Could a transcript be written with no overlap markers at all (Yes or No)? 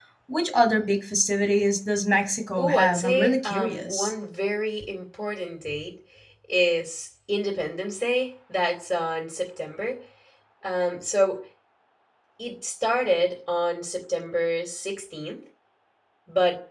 No